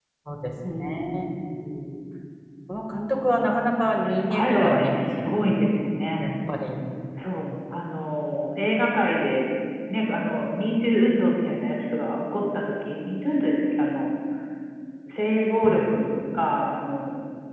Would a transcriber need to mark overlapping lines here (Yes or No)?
Yes